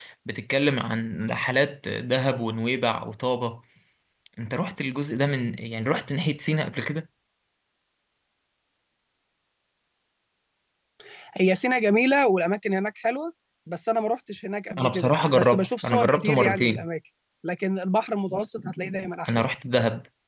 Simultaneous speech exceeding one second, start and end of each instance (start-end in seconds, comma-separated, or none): 14.8-16.9